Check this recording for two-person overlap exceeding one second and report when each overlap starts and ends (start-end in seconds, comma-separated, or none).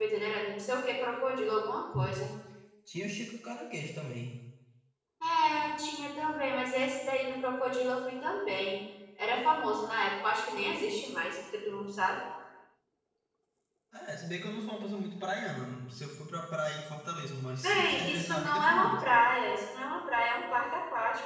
17.6-19.0